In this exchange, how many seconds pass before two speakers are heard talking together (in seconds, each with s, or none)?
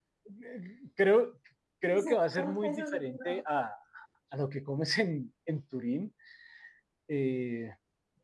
1.9 s